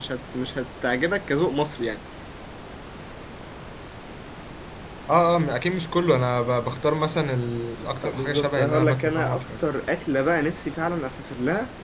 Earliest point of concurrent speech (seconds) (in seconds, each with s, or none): 8.0 s